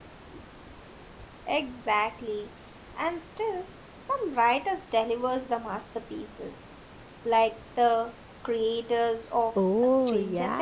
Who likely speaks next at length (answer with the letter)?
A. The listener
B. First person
A